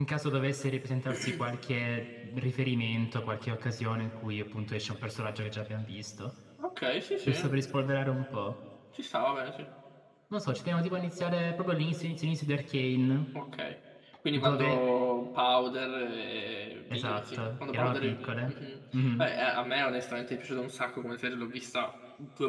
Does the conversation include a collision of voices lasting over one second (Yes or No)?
Yes